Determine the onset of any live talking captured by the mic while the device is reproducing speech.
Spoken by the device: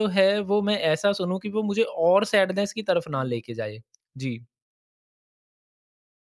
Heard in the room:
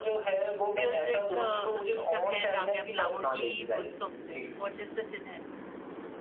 0.8 s

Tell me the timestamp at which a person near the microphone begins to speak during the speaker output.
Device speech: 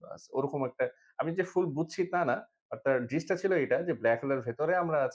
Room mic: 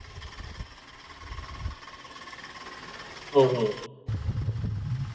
3.3 s

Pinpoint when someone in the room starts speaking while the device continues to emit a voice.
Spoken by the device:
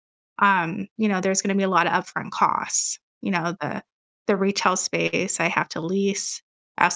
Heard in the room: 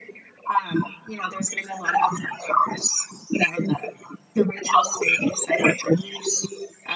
none

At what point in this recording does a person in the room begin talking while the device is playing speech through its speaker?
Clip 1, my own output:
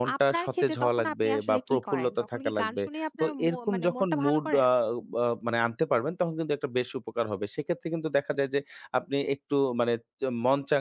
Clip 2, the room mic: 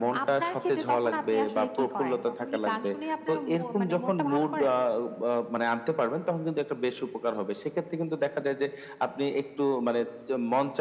none

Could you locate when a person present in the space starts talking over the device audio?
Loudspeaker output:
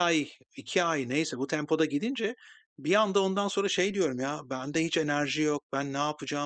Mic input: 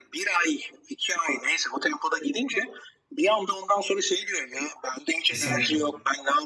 5.2 s

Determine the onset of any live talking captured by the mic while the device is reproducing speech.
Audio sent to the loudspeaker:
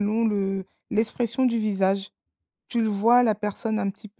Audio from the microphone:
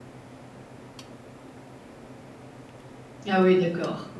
3.3 s

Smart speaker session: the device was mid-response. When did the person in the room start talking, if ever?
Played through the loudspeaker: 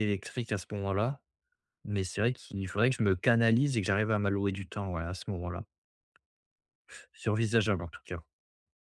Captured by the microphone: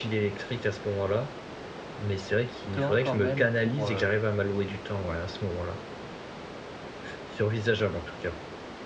2.7 s

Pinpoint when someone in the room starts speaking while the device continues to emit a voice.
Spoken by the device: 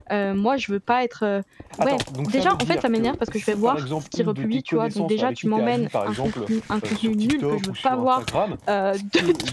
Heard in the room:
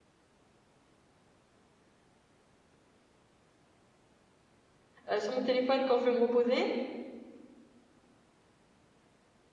5.1 s

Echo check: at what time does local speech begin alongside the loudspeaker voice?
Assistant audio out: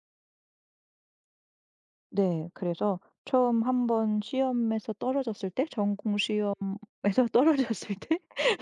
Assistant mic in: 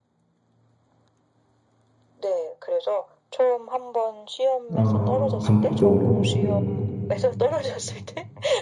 4.7 s

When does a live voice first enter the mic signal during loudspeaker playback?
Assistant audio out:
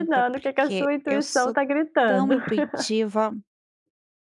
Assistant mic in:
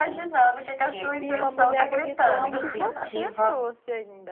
1.1 s

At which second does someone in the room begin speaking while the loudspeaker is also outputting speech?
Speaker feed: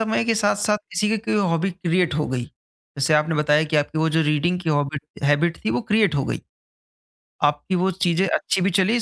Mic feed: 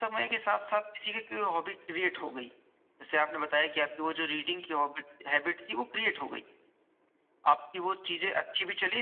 none

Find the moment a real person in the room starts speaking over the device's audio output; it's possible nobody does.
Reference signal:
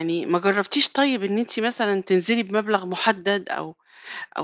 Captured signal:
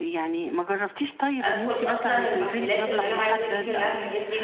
1.4 s

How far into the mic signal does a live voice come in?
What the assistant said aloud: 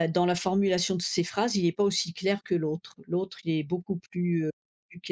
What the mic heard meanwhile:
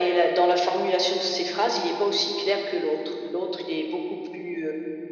none

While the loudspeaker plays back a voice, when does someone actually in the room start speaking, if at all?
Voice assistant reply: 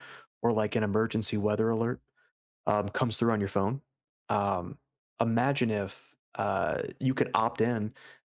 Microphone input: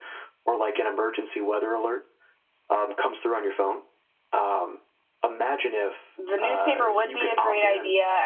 6.2 s

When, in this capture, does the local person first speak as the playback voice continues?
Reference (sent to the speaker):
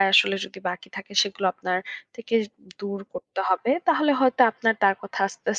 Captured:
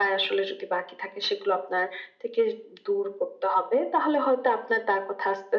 none

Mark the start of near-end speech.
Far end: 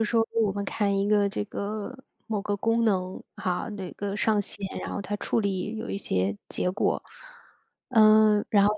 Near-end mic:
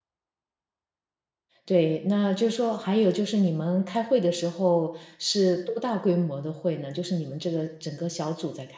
1.6 s

